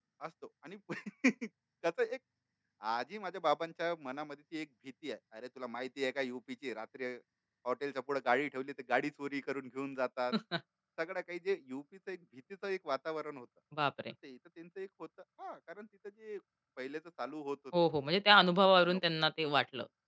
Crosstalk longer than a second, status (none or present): none